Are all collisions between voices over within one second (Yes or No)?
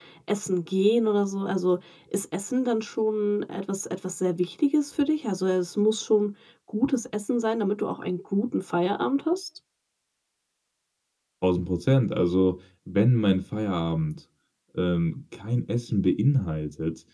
Yes